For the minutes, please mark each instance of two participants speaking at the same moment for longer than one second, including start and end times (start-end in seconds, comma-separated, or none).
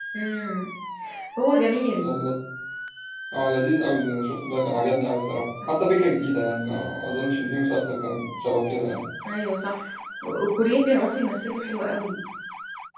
none